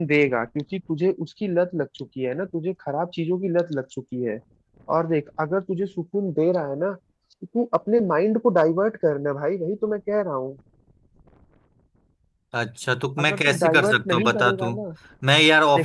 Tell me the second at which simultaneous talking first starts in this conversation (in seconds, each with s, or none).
13.2 s